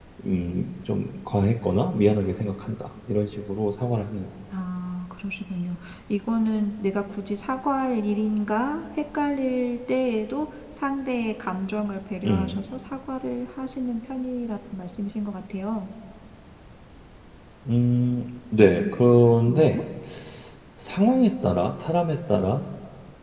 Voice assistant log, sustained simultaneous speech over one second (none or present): none